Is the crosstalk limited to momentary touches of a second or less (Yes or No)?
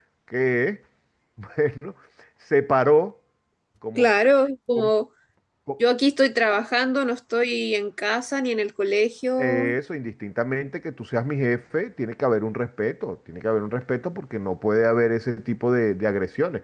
Yes